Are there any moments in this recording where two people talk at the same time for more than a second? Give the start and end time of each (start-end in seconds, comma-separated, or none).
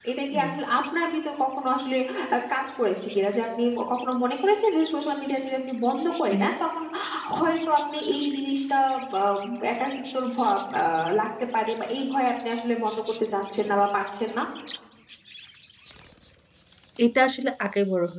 none